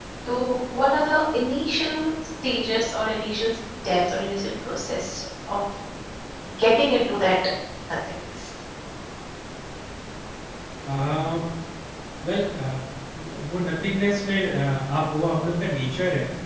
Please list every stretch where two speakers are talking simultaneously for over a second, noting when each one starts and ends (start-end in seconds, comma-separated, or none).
none